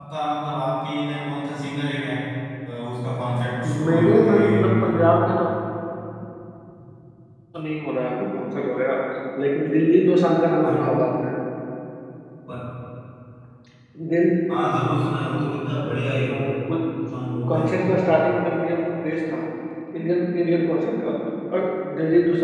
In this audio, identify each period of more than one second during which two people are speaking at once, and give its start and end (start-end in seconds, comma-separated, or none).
3.6-4.9